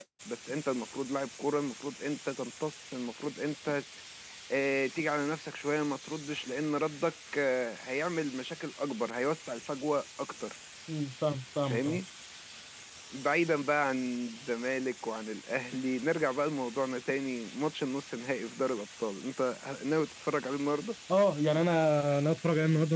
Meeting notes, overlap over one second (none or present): none